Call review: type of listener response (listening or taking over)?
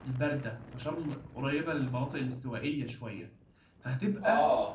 listening